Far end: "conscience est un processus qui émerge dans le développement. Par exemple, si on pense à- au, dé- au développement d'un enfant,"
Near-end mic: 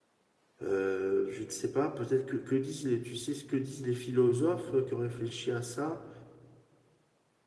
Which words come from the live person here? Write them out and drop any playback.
Euh, je ne sais pas, peut-être que, que disent les, tu sais ce que disent les philosophes euh, qui ont réfléchi à ça?

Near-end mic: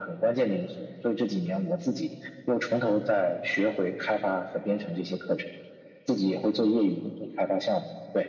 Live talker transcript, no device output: none

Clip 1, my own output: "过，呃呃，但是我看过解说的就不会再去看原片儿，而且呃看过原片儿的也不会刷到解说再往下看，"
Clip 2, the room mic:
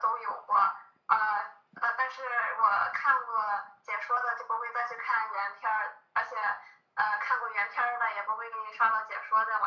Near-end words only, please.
none

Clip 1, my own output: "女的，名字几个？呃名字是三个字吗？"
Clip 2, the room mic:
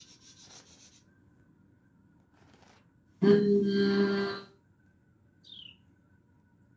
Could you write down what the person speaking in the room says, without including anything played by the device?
嗯，

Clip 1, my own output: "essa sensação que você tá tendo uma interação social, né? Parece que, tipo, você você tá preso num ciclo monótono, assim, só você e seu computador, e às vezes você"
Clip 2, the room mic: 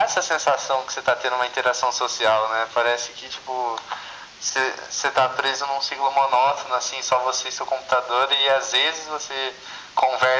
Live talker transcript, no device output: none

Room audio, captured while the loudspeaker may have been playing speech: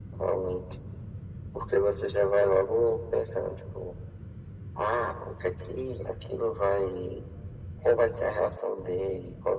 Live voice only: none

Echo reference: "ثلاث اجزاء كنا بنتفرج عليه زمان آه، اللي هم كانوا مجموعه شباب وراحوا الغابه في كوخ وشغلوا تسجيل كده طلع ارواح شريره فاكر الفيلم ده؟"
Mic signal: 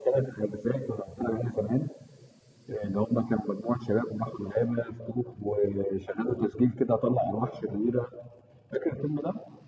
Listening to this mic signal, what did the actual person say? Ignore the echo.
none

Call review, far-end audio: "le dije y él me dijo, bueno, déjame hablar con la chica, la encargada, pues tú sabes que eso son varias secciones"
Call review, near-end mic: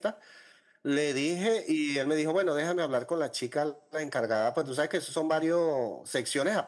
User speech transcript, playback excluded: none

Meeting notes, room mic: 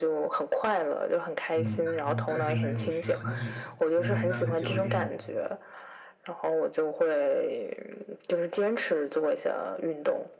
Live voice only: 嗯，但但是没有学很久，因为那个教练

